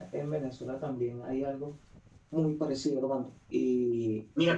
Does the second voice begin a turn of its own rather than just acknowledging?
Yes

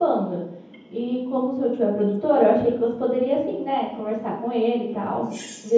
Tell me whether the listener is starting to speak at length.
Yes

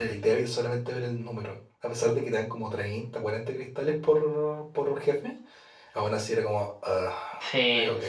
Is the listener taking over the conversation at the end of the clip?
Yes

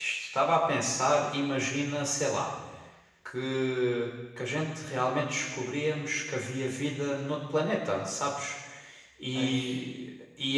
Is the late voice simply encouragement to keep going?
Yes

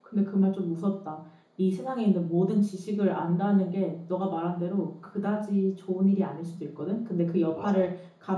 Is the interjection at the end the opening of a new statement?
No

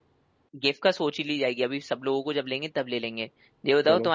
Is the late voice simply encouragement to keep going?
Yes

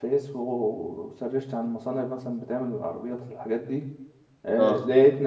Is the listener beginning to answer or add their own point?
No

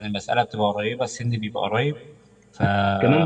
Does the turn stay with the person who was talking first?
No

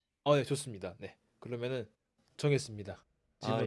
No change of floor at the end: No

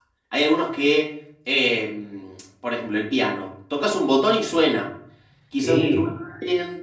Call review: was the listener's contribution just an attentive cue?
Yes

